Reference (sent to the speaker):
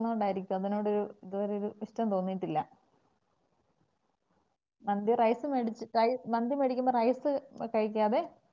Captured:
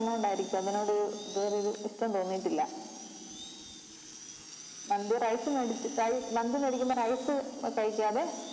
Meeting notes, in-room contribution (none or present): none